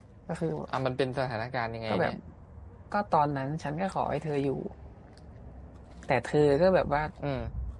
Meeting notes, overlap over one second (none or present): none